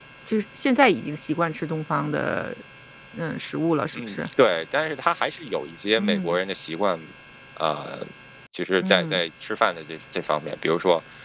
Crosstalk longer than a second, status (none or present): none